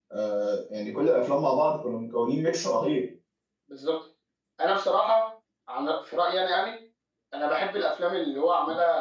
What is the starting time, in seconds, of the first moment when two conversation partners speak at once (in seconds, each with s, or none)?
none